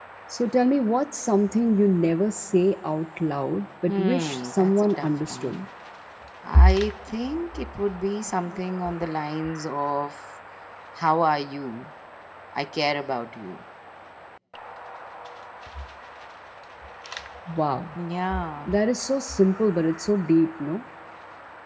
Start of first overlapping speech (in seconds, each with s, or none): 3.9 s